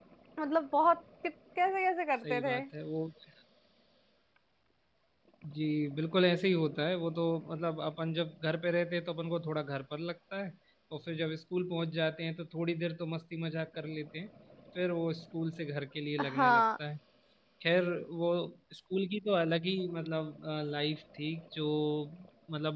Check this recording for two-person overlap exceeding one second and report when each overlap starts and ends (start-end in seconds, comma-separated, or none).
none